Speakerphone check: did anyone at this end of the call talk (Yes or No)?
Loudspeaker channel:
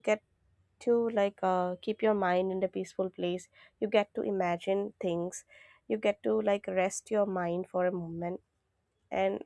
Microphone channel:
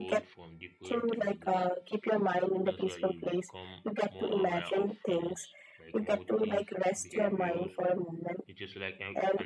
Yes